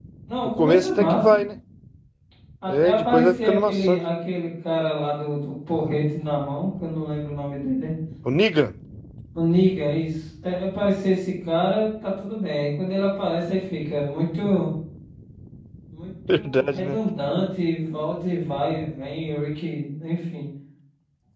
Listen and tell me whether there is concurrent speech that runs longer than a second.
Yes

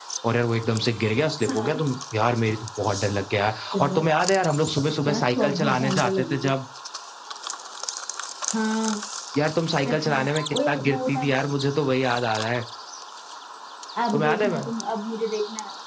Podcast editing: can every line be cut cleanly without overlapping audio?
No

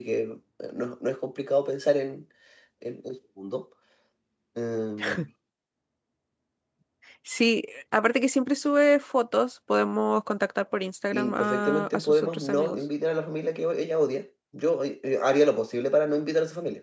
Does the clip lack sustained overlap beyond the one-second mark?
No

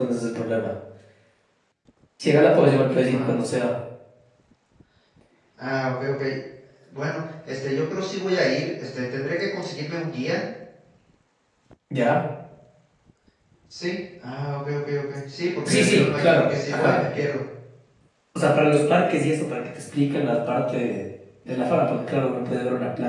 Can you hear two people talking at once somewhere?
Yes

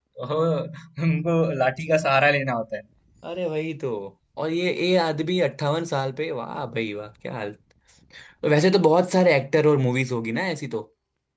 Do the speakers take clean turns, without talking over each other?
Yes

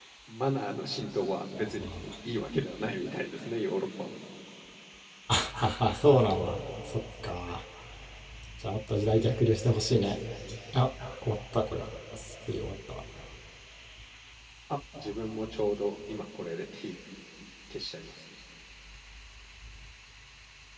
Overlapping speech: No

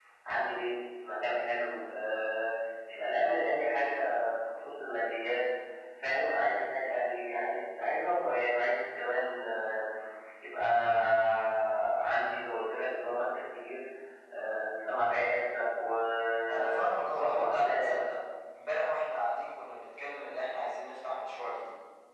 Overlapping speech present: Yes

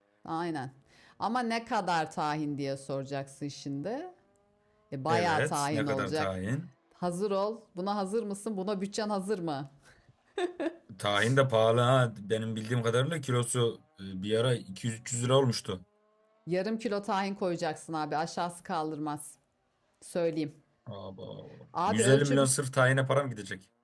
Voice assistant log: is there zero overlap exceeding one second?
No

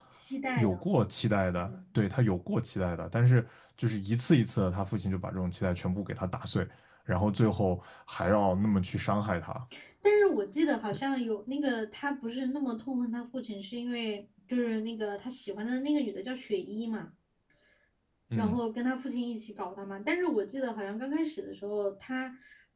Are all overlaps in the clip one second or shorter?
Yes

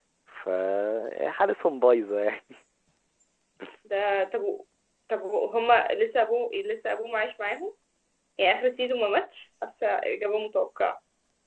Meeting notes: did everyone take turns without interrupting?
Yes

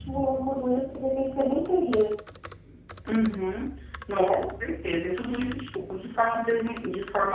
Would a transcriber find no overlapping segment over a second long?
Yes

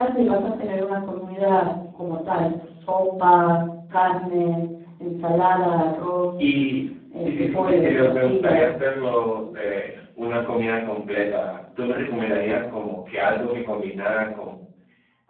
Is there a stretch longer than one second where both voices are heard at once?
Yes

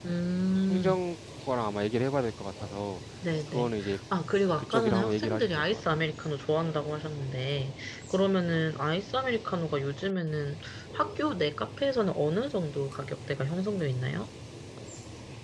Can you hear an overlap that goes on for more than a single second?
Yes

